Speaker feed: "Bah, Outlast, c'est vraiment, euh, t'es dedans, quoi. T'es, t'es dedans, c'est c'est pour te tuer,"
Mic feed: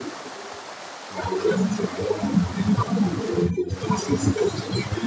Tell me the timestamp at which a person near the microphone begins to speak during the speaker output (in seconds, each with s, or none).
none